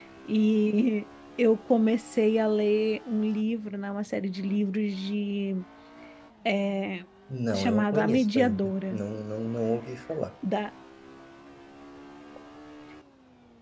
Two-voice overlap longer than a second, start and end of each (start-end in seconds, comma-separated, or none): 7.5-9.0